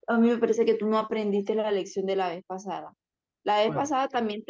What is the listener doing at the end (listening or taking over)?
listening